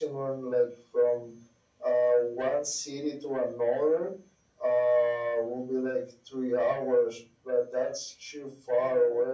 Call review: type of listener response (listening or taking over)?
taking over